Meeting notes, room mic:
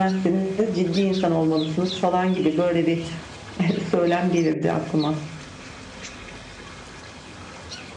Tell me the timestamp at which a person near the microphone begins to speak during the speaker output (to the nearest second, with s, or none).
none